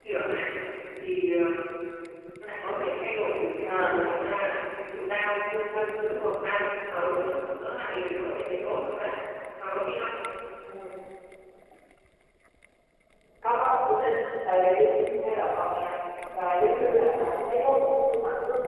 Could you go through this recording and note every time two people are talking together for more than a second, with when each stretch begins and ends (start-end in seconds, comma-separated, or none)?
none